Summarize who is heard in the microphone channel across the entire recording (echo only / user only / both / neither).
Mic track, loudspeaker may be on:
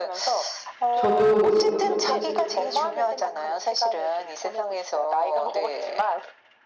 both